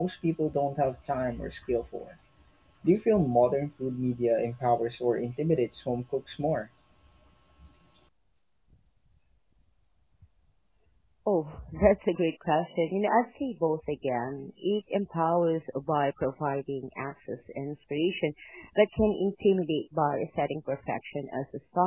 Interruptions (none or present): none